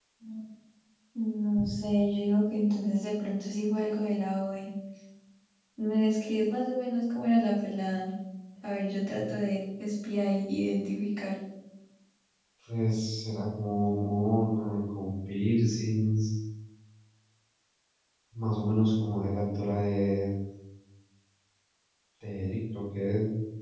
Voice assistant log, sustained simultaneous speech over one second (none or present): none